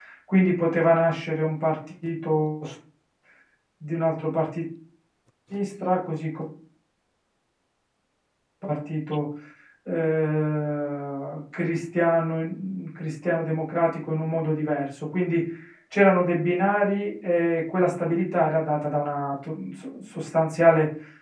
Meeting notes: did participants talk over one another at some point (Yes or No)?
No